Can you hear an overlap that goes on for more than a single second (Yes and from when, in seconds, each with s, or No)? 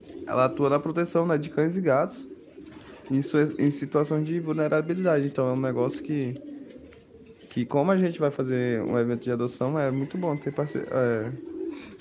No